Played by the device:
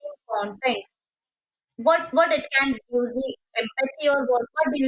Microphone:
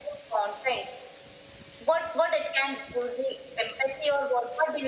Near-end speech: none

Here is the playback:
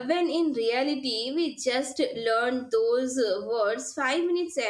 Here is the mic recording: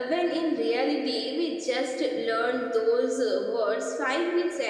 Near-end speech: none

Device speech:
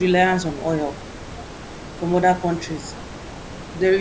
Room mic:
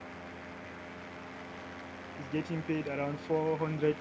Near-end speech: present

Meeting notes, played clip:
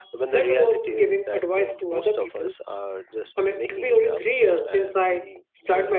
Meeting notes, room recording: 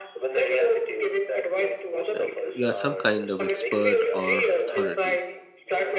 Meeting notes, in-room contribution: present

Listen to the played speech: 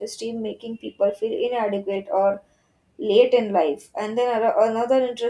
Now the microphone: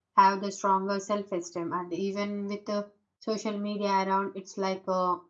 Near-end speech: present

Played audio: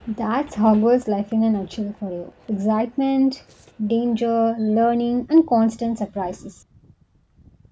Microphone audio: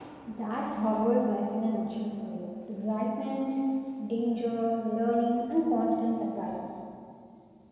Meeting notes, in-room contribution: none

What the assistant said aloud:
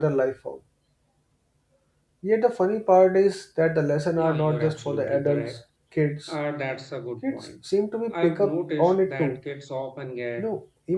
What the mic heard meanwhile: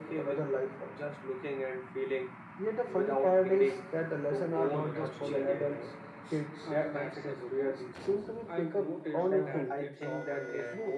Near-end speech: present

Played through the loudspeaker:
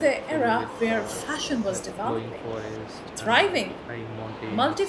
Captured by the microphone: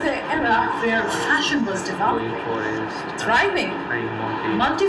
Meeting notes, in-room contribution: none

